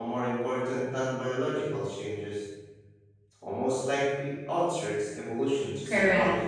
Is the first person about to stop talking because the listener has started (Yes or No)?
Yes